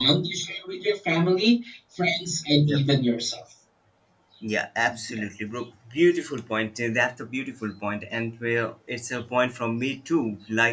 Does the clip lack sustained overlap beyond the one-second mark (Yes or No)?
Yes